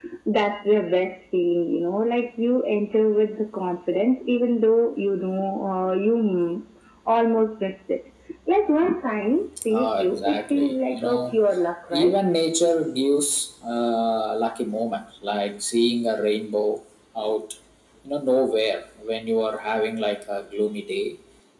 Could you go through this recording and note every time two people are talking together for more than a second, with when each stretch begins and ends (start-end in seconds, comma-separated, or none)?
9.7-11.4